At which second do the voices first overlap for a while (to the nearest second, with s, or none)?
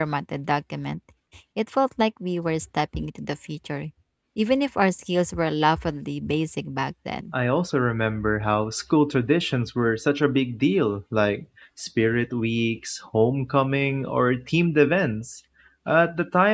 none